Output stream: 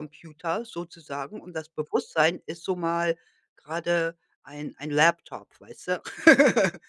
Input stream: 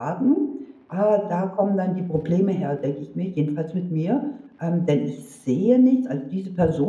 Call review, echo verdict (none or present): none